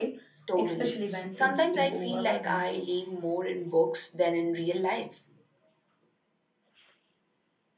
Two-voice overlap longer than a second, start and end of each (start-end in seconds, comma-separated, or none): 0.6-2.6